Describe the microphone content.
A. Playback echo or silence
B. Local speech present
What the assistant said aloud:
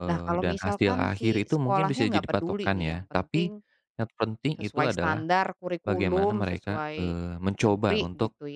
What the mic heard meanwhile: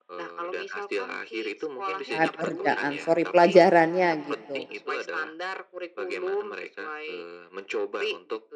B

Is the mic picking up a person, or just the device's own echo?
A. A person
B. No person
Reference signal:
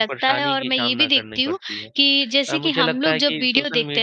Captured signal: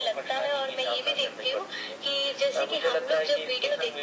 B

